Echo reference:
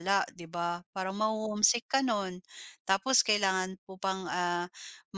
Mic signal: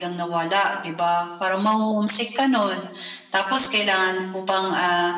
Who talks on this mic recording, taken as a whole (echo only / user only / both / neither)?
echo only